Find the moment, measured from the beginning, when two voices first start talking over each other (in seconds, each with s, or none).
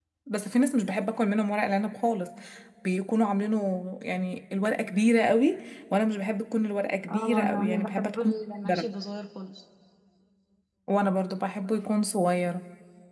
7.1 s